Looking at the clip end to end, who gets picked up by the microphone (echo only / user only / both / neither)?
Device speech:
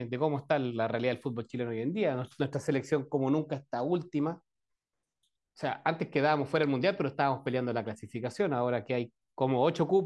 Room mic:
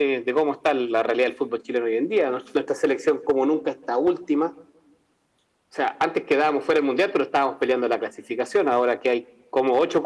echo only